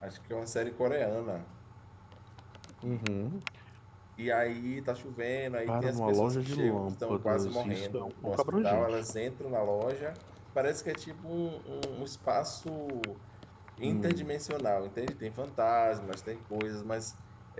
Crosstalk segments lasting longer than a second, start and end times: 5.7-9.0

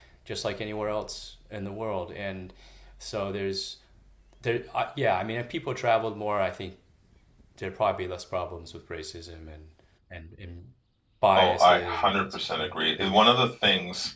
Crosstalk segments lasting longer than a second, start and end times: 11.3-13.2

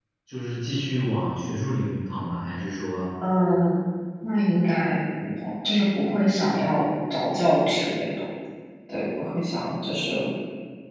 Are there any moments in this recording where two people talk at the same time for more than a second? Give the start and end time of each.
none

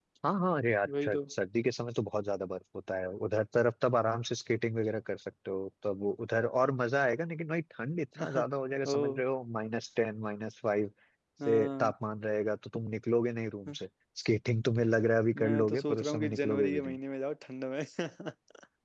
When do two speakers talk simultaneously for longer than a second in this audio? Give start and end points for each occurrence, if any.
15.4-16.7

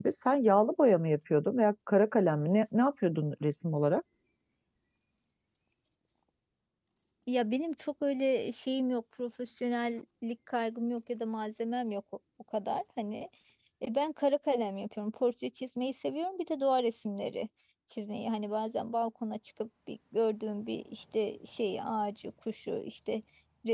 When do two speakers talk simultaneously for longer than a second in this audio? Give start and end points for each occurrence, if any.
none

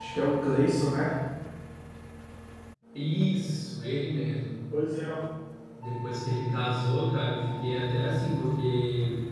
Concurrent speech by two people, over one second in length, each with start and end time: none

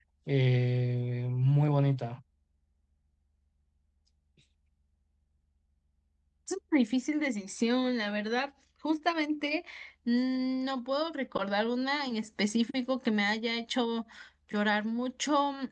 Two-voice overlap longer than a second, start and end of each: none

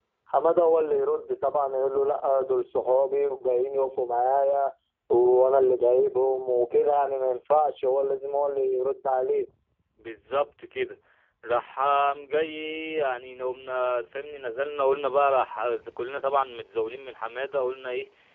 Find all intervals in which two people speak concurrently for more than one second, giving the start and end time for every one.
none

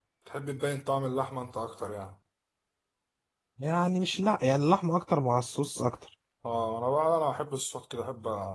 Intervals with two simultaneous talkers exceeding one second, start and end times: none

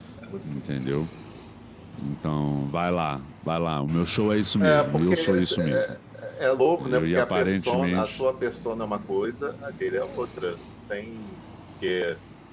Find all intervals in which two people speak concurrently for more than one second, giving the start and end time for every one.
4.6-6.0, 6.8-8.2

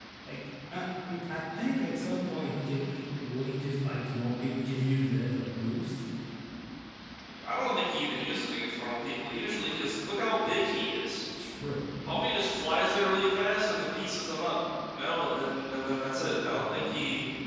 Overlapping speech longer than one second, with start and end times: none

